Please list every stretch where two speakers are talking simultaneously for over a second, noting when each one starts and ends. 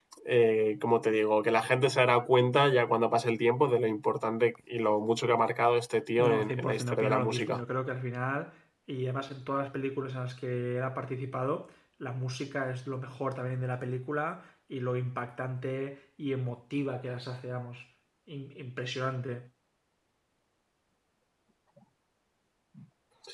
6.2-7.6

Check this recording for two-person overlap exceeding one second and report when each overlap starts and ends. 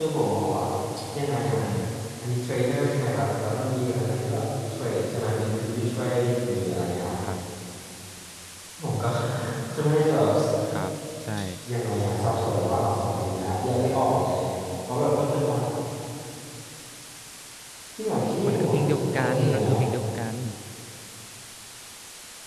18.5-19.7

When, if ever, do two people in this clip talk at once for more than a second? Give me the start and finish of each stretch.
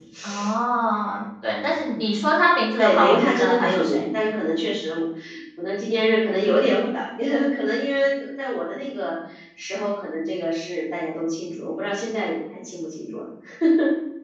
2.8-4.0

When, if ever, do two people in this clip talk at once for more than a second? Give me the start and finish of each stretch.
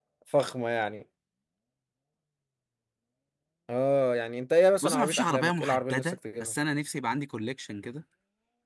4.8-6.5

